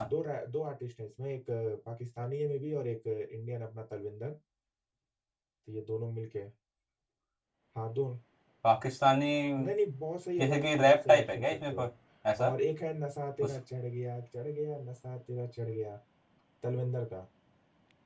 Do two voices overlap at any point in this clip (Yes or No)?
Yes